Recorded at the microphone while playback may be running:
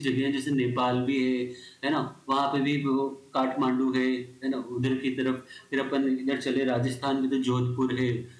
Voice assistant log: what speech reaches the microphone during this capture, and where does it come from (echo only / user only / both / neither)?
user only